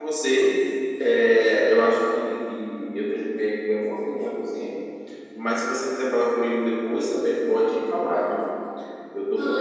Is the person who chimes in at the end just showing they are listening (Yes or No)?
Yes